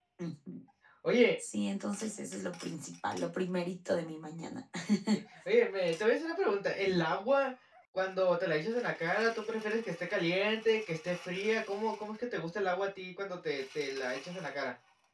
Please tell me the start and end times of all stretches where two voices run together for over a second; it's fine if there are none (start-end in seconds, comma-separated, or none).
none